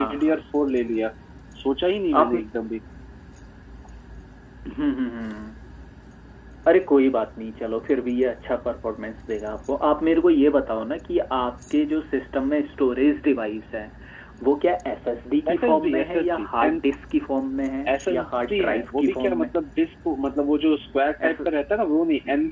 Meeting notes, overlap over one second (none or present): present